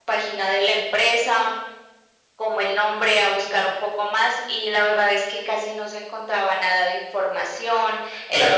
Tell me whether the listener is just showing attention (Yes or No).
No